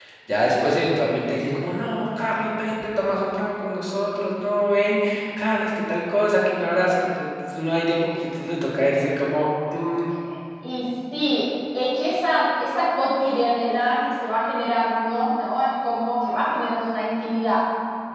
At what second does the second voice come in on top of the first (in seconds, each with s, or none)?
none